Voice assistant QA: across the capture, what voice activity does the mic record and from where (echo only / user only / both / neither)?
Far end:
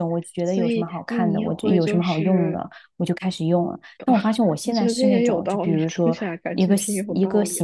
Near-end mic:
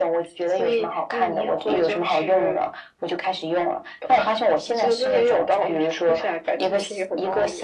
echo only